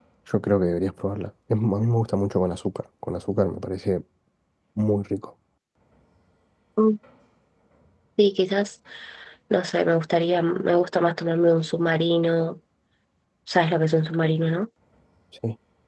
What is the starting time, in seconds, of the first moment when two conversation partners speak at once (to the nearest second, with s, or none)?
none